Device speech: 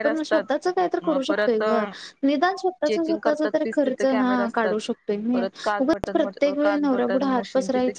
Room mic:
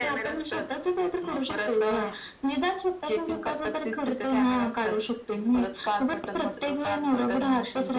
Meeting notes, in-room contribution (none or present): none